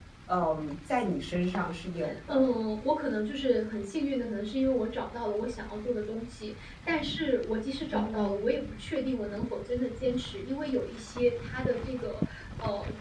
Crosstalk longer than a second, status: none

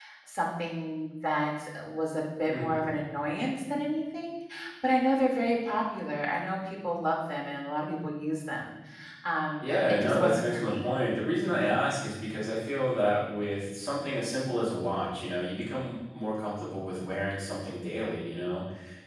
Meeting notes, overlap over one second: present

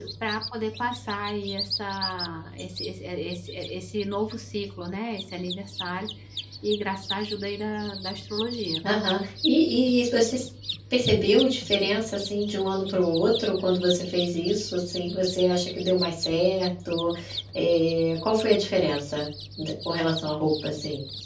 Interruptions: none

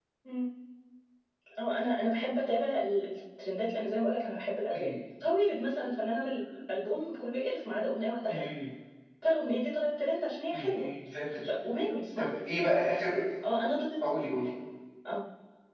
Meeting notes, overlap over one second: none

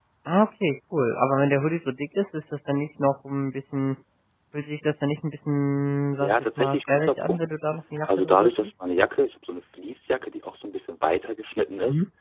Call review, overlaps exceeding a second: present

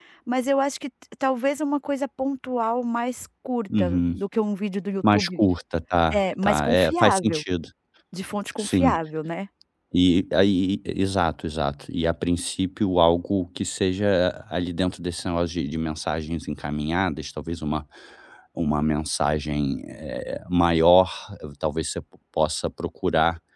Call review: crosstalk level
present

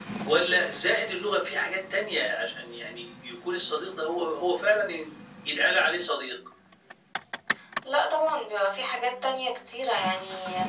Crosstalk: none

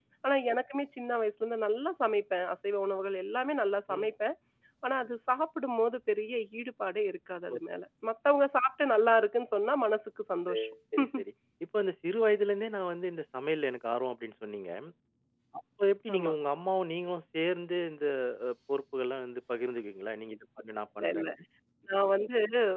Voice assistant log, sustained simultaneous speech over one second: none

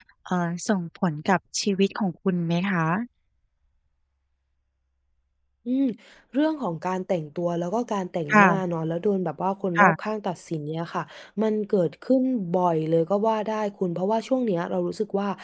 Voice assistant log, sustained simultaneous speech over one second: none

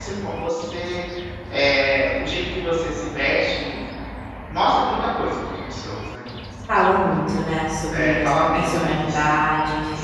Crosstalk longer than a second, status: present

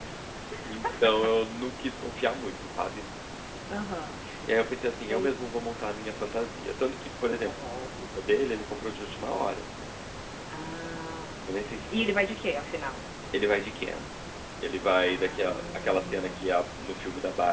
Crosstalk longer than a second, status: present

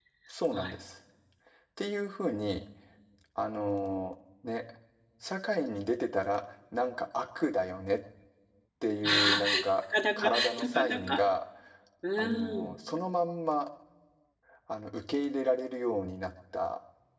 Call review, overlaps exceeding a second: present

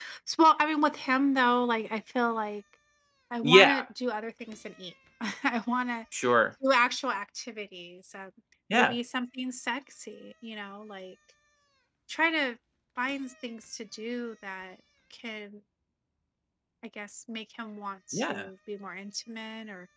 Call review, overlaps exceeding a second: none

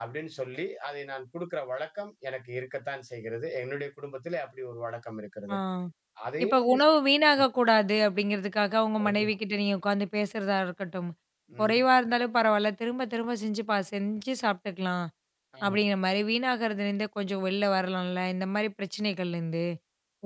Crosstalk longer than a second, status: none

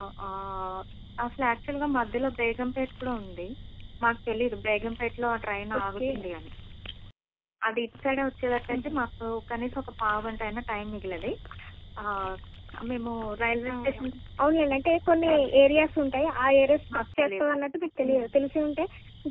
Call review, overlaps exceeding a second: none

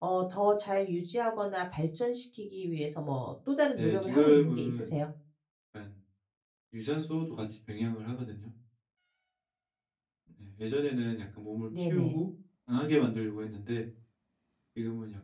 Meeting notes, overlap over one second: present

